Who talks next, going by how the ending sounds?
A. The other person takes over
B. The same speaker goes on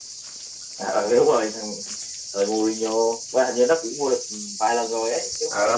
A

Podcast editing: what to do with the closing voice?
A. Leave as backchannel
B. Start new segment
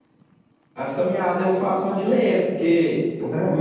A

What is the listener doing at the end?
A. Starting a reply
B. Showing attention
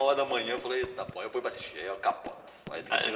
A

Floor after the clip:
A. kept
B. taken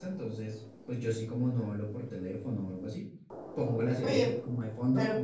B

